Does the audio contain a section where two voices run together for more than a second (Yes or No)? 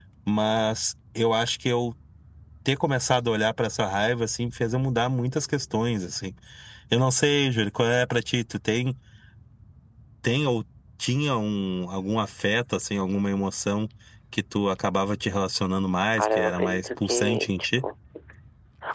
Yes